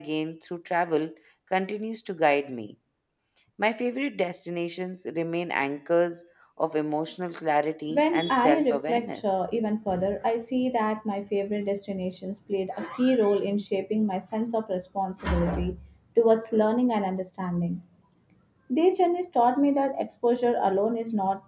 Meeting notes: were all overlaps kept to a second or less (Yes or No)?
No